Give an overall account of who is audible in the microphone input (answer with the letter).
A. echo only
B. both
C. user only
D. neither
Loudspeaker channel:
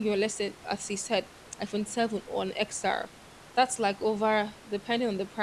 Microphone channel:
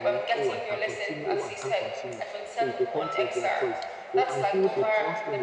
B